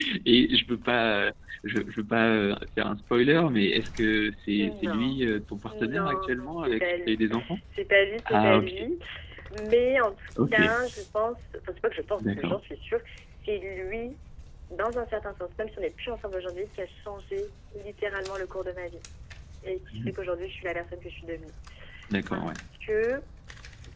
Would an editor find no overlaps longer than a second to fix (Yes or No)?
No